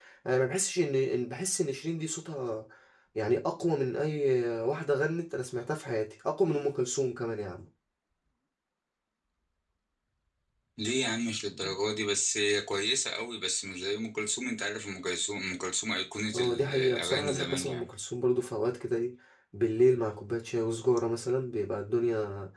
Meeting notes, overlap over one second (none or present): present